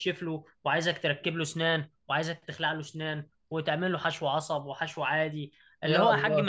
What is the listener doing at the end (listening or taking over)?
listening